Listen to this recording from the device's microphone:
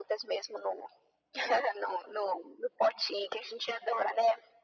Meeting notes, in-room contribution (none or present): none